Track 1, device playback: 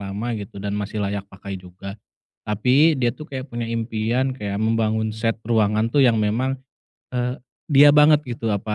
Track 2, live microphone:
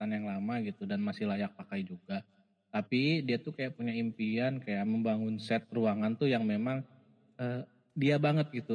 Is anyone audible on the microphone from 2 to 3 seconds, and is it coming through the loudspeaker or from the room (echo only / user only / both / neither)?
echo only